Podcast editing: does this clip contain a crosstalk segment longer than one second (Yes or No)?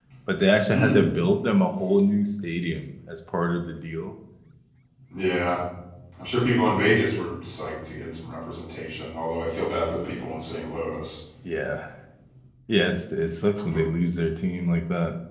No